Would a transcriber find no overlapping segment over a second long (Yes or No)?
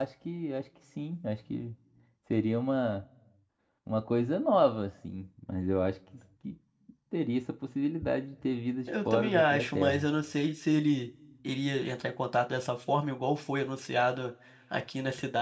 No